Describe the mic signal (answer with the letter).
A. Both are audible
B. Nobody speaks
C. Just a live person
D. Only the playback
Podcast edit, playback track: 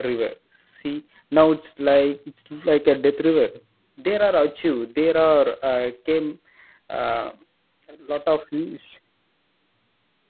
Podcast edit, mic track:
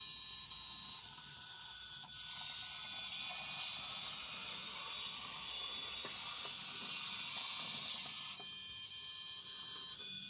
B